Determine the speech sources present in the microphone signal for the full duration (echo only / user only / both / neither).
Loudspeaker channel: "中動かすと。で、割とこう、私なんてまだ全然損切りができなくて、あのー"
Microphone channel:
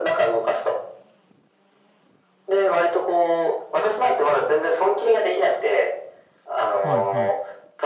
both